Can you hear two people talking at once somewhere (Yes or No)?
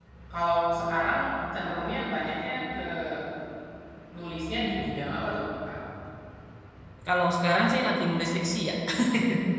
No